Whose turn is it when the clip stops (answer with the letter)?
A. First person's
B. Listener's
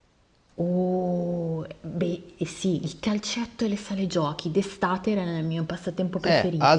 B